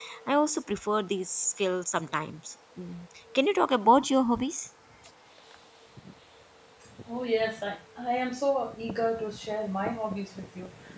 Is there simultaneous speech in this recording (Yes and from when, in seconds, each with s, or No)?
No